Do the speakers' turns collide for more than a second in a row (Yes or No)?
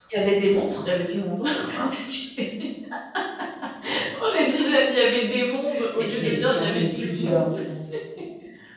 Yes